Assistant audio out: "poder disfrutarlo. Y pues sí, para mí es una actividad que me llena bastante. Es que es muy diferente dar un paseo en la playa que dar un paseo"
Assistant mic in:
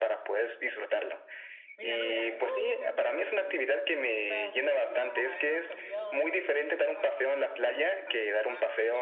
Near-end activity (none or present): present